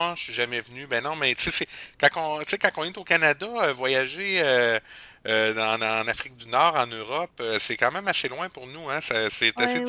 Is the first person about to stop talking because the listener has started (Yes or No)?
Yes